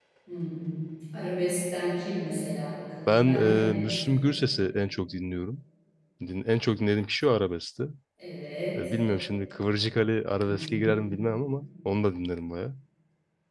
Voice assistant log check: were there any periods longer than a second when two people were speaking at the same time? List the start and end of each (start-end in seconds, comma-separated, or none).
3.1-4.3